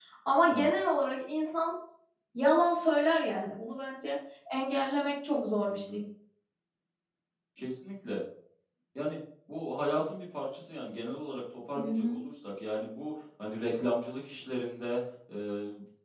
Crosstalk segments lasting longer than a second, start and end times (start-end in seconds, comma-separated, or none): none